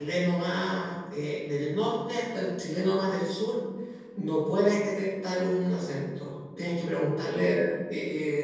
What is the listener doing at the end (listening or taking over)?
listening